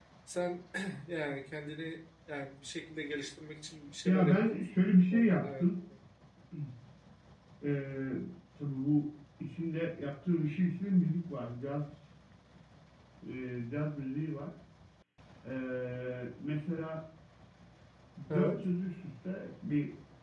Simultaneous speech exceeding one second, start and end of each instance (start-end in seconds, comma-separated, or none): 4.0-5.6